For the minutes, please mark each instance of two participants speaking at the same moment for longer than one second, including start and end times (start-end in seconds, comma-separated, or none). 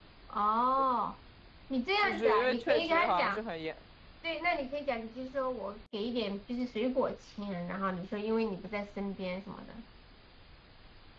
2.0-3.4